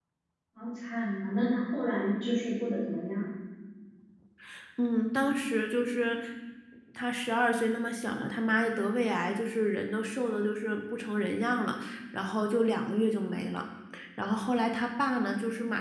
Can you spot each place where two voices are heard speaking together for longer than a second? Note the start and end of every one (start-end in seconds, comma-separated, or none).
none